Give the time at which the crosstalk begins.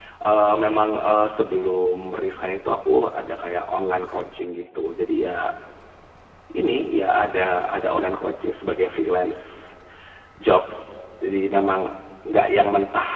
none

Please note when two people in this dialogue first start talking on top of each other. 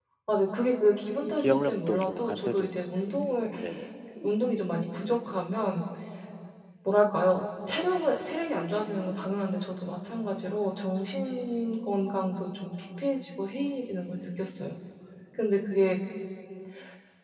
1.4 s

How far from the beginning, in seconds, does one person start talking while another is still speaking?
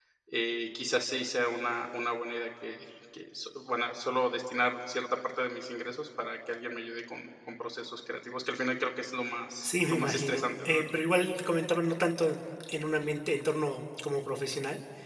9.6 s

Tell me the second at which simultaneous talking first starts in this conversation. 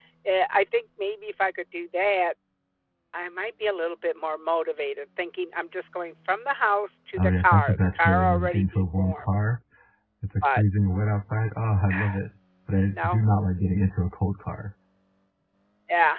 7.2 s

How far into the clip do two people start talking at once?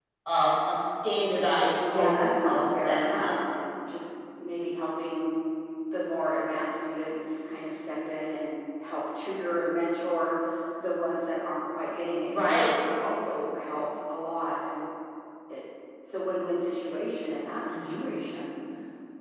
1.8 s

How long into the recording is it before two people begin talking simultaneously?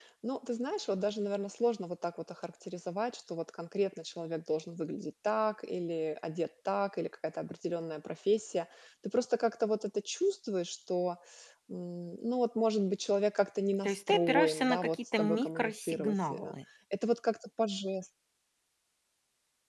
13.8 s

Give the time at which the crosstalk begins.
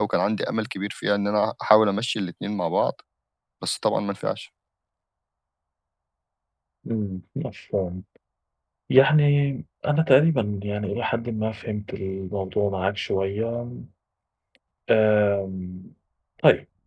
none

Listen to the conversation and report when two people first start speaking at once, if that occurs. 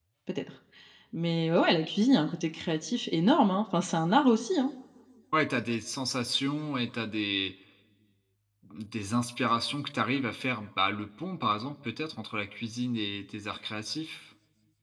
none

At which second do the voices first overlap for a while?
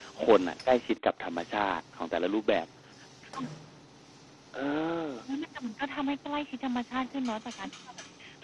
none

